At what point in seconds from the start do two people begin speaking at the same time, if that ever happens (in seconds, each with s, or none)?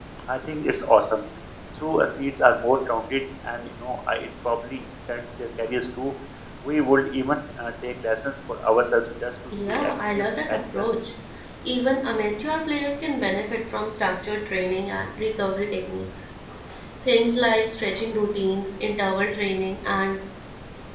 9.5 s